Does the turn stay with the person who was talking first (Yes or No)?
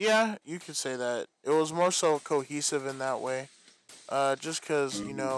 Yes